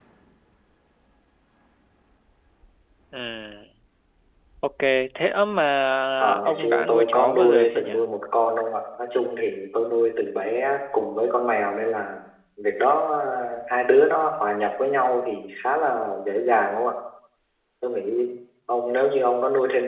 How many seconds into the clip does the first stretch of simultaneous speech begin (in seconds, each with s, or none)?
6.2 s